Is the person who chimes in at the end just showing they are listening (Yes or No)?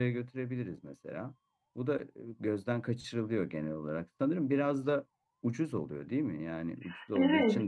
No